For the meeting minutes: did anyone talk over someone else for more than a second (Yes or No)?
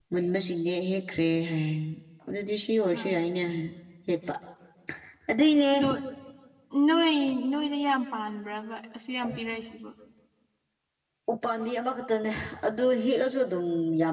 No